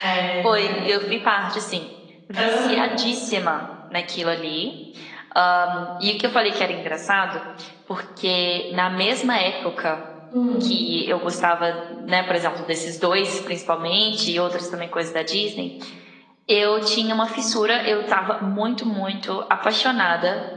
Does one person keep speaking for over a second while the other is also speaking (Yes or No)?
No